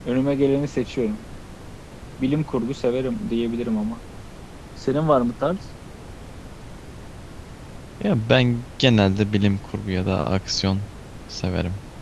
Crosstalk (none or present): none